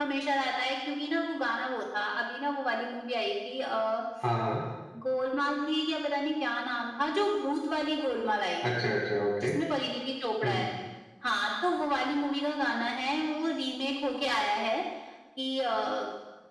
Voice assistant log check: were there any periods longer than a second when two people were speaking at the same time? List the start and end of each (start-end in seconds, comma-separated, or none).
none